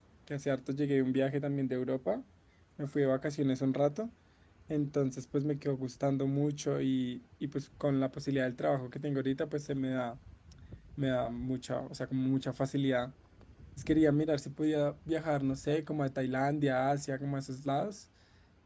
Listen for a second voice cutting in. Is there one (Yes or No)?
No